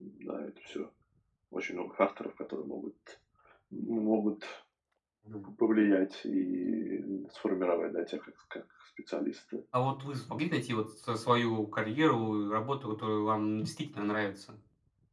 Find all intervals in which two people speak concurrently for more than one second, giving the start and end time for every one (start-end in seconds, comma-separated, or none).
none